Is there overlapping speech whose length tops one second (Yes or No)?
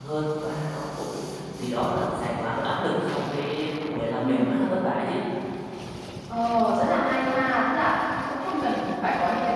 No